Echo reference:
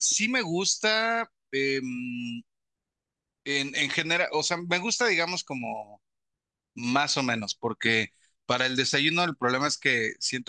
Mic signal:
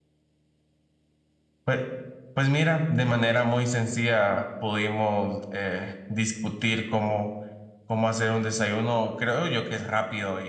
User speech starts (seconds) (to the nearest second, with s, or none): 2 s